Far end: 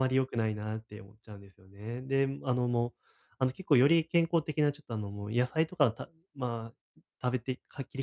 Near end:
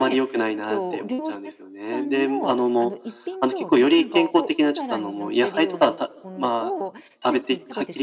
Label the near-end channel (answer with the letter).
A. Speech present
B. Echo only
A